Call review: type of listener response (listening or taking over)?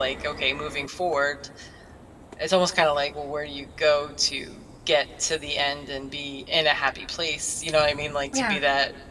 listening